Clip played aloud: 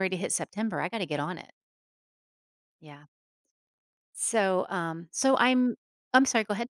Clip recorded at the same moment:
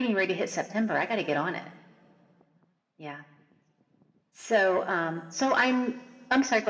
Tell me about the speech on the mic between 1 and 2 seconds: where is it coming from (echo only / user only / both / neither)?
echo only